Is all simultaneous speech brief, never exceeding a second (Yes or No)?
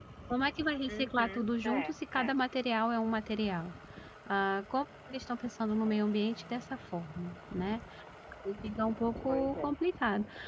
No